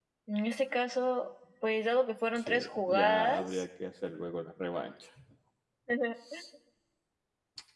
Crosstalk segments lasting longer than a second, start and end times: 2.4-3.6

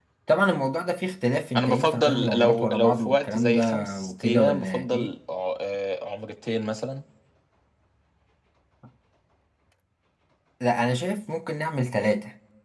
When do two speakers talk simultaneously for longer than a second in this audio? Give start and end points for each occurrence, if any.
1.6-5.1

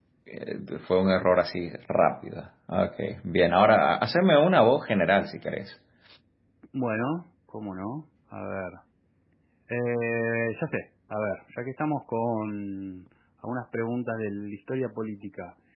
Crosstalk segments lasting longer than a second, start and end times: none

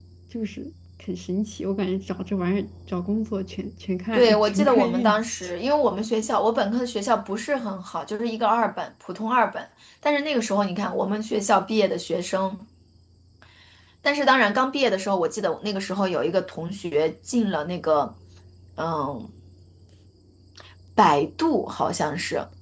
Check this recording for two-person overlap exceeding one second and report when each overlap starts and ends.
4.1-5.5

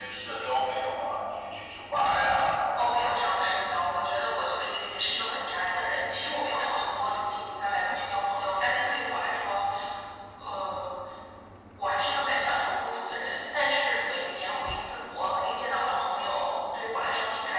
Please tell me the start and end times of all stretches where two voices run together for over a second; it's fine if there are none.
none

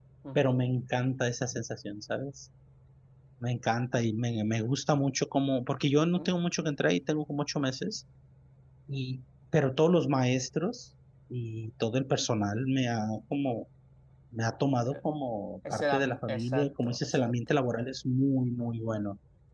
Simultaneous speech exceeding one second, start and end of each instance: 15.7-17.4

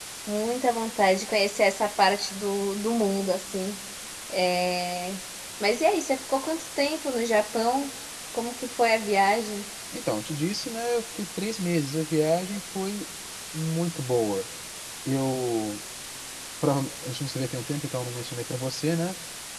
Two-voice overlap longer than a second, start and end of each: none

